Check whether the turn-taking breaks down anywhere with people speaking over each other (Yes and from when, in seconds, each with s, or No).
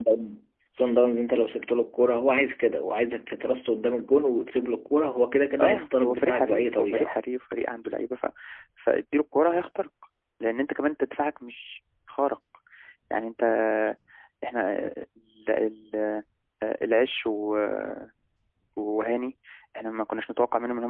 Yes, from 5.6 s